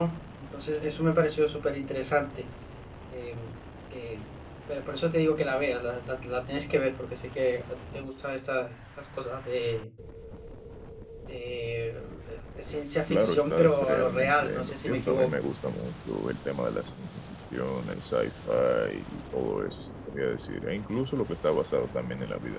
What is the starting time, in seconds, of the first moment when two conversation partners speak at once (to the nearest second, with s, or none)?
13 s